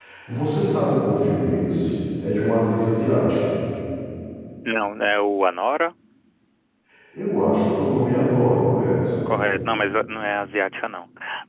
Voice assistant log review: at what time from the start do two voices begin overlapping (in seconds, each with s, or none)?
none